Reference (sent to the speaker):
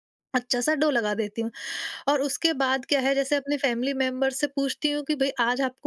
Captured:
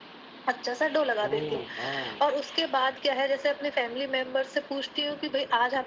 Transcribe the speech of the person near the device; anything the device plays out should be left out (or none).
ओह, वॉव!